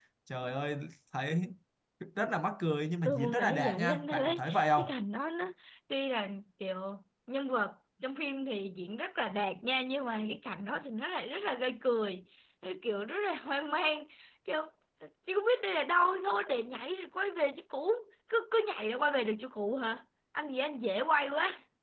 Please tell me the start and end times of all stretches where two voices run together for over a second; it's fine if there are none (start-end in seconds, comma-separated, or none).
3.0-4.9